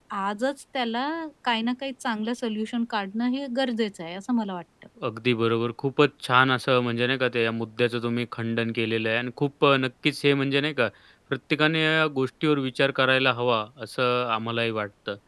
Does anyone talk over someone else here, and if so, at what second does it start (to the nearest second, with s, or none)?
none